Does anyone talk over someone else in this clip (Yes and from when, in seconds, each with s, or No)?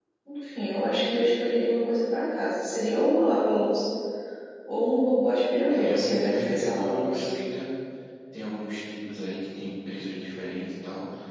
Yes, from 5.7 s